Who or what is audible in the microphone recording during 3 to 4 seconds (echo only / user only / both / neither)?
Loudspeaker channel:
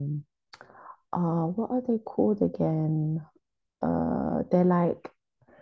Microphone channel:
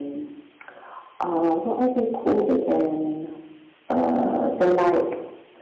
echo only